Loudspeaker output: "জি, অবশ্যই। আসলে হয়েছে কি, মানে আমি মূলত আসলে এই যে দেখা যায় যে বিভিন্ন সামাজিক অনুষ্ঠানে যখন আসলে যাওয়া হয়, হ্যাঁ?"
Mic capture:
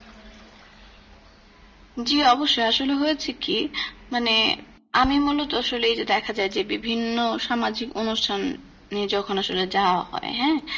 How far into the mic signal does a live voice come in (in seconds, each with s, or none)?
none